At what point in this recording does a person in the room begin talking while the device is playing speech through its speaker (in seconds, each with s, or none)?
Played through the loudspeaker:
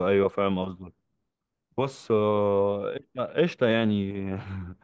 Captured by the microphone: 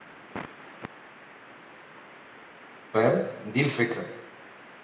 2.9 s